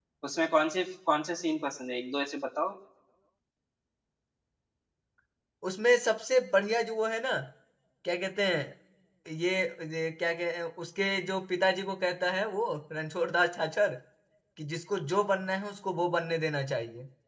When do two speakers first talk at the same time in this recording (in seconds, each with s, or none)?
none